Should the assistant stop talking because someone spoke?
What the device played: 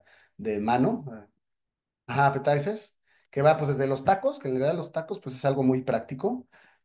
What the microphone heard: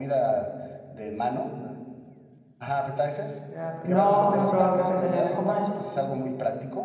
Yes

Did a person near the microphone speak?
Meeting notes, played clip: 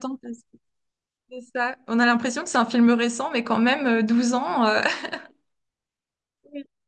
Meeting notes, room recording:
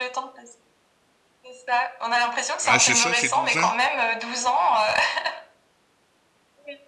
Yes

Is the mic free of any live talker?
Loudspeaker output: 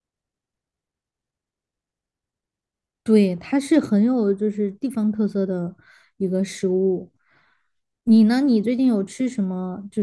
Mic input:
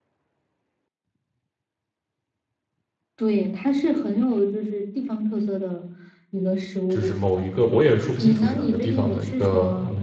No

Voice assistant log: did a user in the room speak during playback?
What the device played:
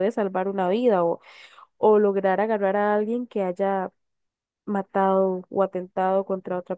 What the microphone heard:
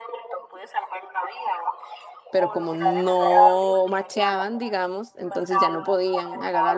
Yes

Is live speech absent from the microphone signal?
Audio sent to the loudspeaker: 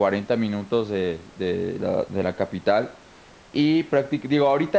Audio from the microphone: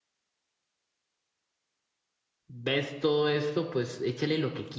No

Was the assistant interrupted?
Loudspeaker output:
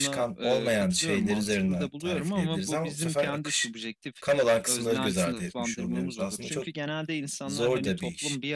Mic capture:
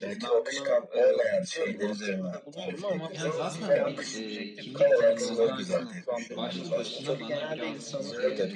Yes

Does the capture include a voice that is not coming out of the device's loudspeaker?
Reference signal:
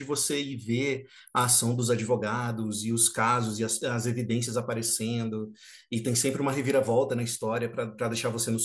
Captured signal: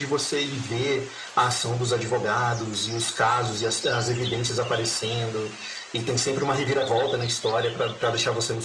No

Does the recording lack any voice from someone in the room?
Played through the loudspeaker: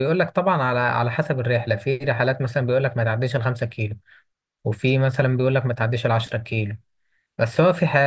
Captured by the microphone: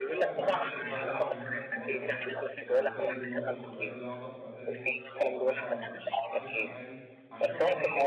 No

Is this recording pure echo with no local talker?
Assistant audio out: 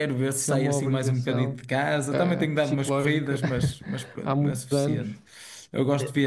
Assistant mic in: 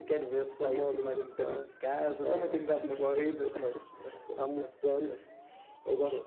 Yes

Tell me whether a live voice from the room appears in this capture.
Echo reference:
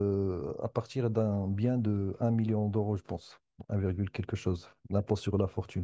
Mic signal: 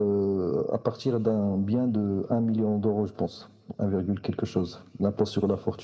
No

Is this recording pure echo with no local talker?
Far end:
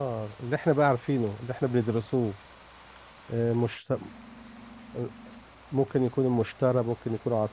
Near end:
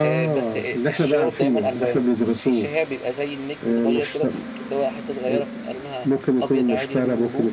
No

